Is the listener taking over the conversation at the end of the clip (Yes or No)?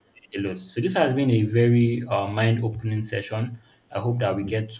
No